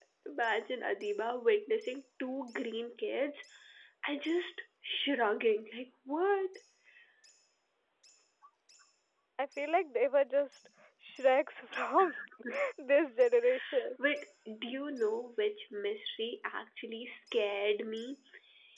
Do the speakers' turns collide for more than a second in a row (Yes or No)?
No